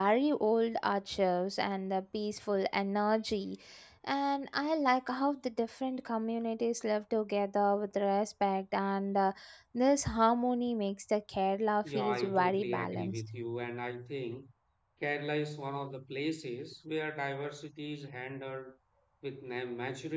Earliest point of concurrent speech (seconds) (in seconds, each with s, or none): 11.8 s